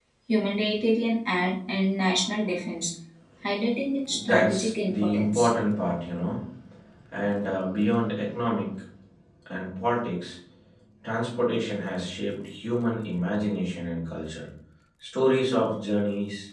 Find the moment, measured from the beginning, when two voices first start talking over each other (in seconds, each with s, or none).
4.1 s